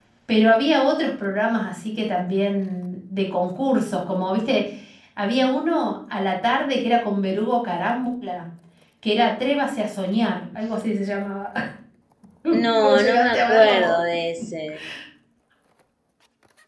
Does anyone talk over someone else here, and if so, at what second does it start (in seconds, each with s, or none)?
12.7 s